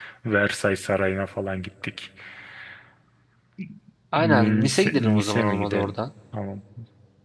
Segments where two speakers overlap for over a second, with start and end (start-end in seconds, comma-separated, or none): 4.2-6.0